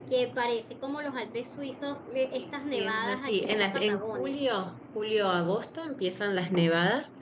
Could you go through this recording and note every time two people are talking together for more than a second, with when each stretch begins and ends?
2.3-4.4

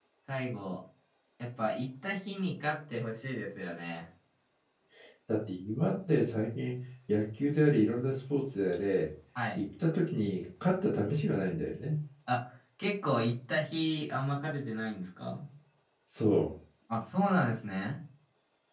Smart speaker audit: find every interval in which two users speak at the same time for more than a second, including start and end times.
none

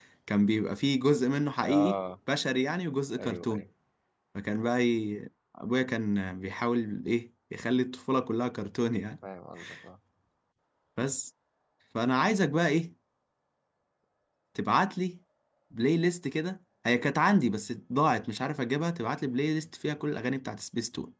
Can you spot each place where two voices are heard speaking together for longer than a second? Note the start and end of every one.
none

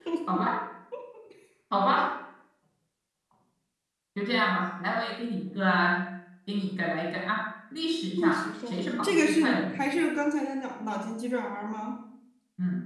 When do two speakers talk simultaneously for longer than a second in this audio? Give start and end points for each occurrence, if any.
8.2-9.8

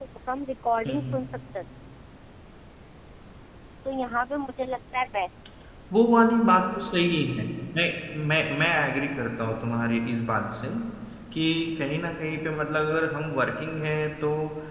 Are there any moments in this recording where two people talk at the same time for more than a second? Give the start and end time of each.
none

